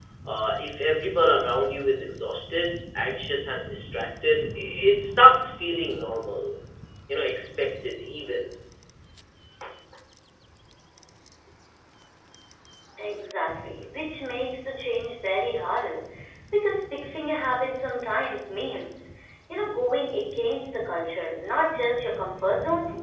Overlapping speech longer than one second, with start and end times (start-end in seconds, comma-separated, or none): none